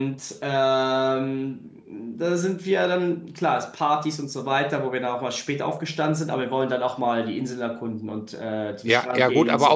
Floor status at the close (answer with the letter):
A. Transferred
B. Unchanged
A